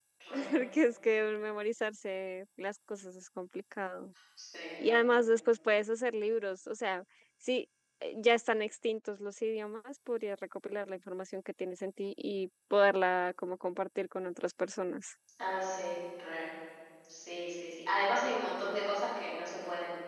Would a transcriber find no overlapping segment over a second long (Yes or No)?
Yes